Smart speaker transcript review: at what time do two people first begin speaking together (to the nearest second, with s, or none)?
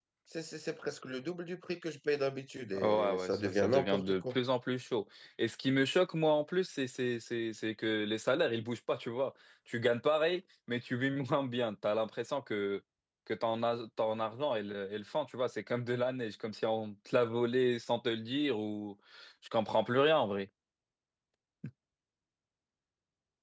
3 s